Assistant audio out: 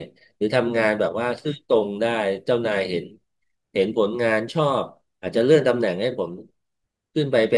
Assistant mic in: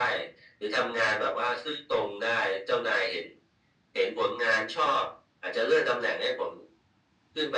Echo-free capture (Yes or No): No